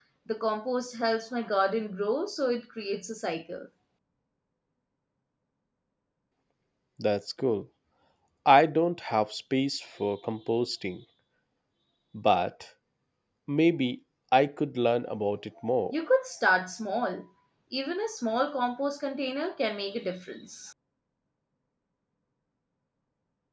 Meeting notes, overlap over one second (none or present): none